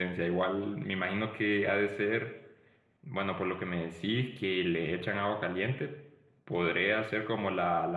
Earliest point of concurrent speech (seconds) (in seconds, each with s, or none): none